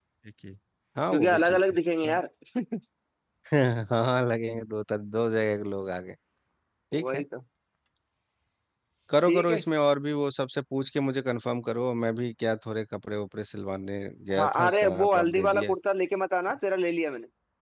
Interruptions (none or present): present